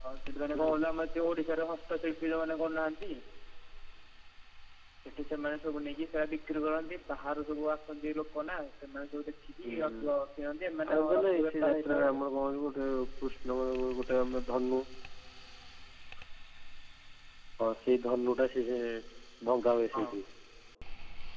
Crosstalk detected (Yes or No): Yes